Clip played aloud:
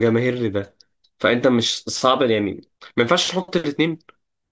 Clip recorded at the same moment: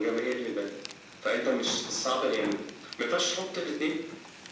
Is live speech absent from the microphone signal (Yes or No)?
Yes